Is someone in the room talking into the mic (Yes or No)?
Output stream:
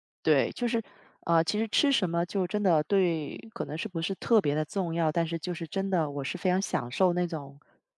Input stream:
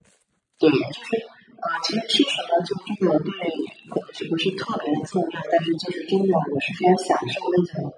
No